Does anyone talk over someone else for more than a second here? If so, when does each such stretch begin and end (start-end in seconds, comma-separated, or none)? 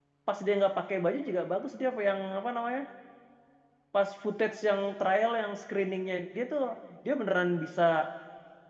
none